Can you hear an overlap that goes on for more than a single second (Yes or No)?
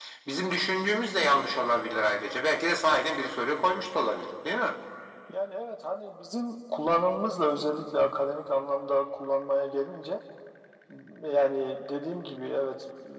No